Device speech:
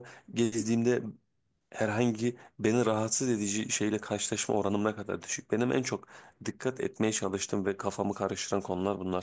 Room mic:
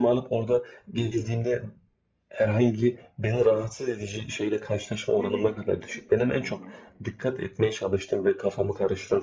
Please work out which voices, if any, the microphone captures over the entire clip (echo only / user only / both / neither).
both